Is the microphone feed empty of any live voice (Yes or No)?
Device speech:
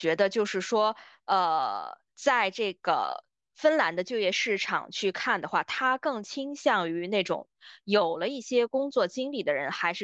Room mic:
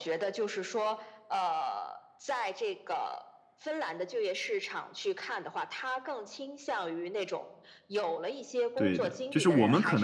No